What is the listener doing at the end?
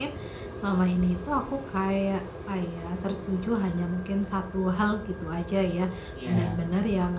listening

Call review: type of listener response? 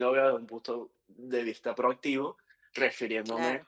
listening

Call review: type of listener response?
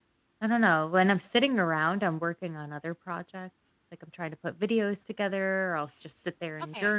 listening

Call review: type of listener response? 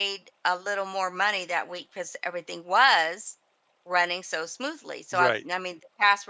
listening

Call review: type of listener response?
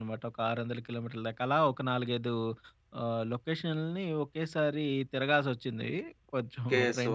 taking over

